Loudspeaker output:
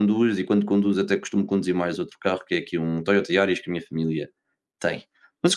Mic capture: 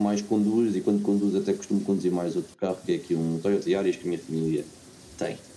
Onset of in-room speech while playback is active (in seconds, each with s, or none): none